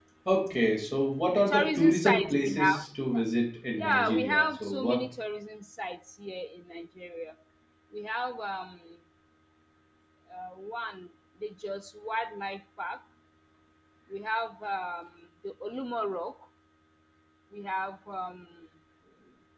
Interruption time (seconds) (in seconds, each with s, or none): 1.3 s